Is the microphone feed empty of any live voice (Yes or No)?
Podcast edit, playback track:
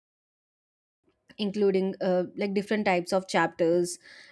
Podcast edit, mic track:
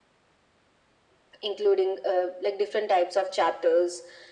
Yes